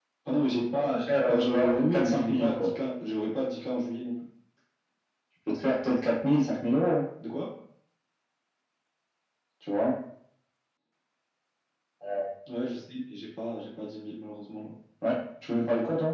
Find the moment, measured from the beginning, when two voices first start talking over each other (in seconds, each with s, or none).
1.1 s